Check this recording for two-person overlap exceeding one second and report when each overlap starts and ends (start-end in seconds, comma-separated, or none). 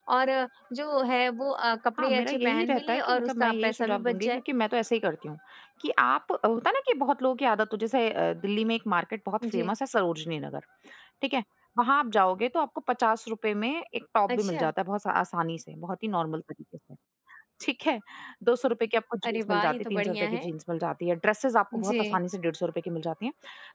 2.0-4.4, 19.2-20.5